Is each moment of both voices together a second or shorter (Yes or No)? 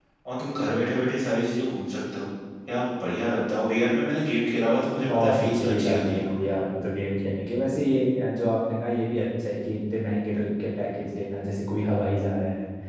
No